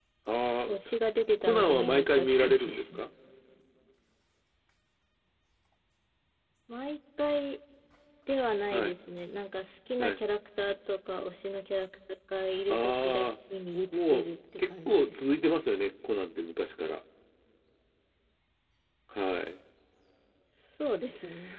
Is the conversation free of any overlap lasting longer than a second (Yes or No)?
No